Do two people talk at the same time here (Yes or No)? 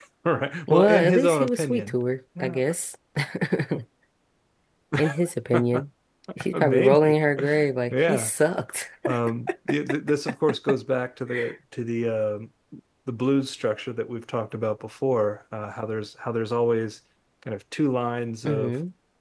Yes